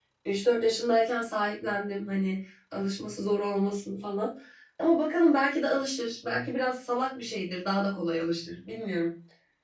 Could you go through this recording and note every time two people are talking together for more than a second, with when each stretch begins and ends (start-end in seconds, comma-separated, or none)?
none